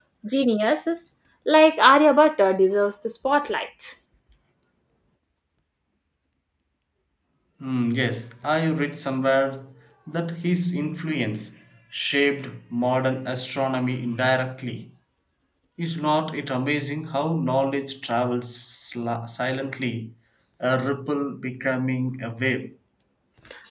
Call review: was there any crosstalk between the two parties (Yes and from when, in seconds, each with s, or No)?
No